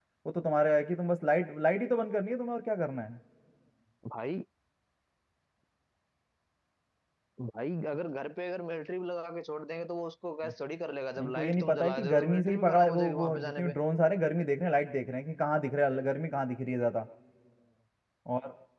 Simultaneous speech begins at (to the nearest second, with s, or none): 11 s